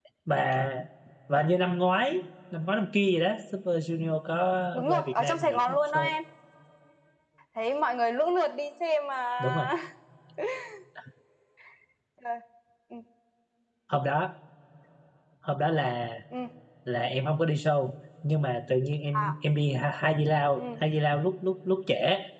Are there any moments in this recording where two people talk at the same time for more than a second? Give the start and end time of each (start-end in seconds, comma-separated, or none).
4.7-6.2